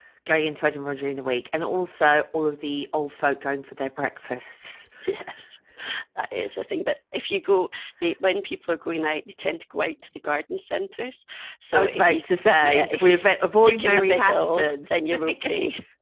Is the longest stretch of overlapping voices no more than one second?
No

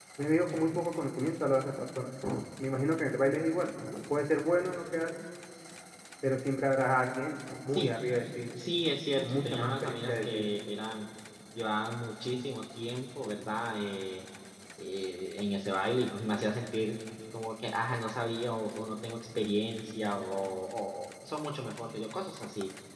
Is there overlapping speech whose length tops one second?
Yes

